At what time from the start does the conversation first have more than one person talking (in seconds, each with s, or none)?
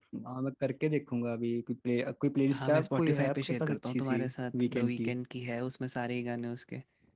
2.5 s